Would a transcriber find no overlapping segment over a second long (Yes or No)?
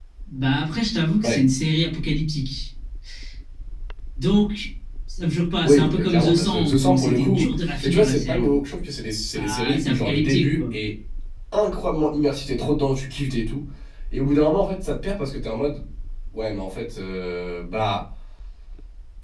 No